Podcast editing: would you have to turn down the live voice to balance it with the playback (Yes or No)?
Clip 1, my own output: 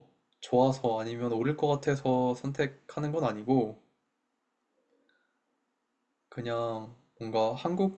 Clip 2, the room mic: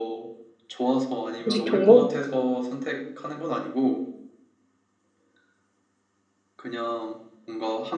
Yes